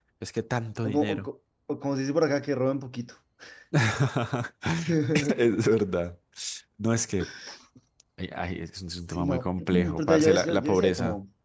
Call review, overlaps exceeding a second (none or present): present